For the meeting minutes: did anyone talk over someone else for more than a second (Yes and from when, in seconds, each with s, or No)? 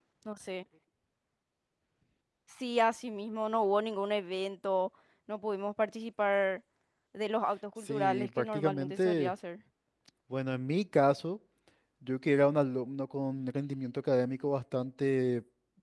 Yes, from 7.8 s